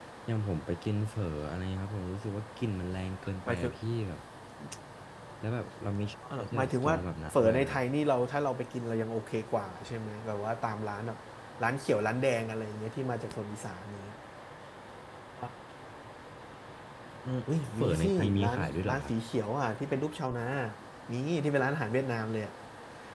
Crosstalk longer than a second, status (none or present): present